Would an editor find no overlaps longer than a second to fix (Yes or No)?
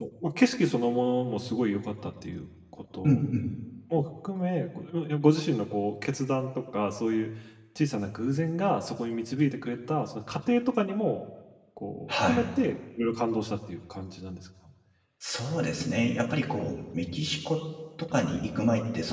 Yes